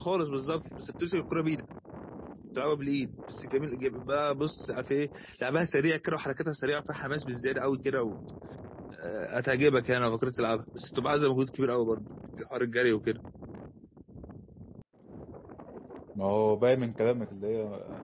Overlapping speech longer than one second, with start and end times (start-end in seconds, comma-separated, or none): none